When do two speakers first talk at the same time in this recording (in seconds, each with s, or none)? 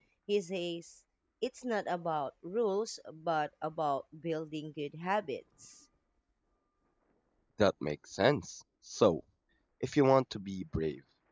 none